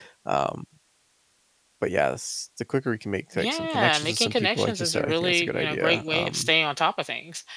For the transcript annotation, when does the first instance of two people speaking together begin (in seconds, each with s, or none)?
3.3 s